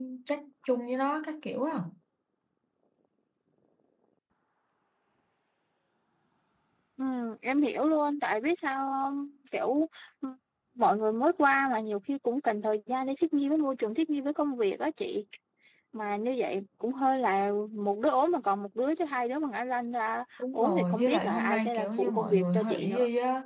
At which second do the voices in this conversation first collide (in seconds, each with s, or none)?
20.4 s